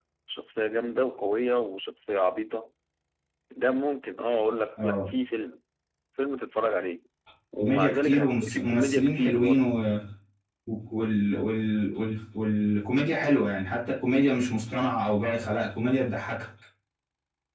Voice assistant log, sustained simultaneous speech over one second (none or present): present